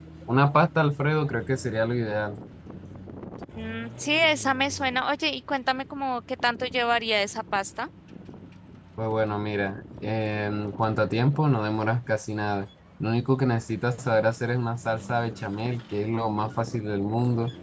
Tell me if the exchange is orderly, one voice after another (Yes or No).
Yes